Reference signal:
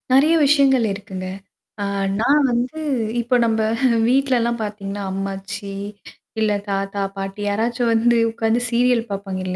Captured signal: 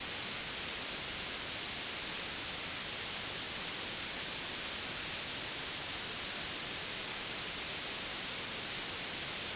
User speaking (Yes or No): No